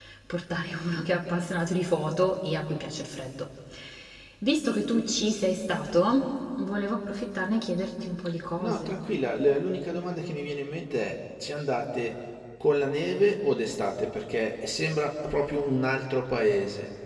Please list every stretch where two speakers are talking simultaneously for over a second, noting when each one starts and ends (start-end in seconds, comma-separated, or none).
none